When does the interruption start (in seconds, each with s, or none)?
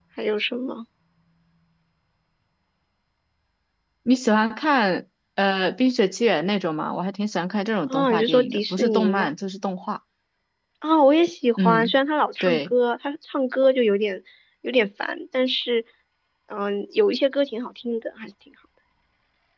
7.9 s